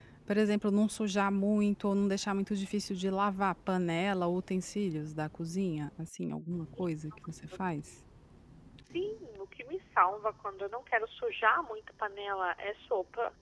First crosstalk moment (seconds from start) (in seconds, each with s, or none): none